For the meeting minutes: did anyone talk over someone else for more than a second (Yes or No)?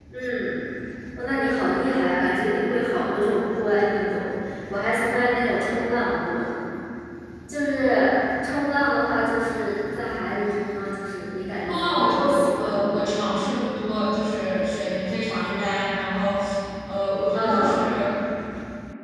Yes